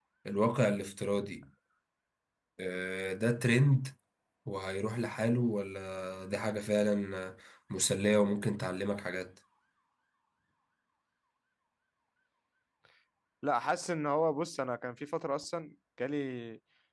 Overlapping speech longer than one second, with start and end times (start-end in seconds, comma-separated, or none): none